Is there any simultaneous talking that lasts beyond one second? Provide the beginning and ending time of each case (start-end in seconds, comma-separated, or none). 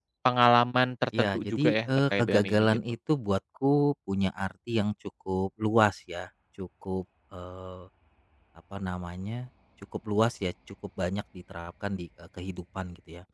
1.2-2.8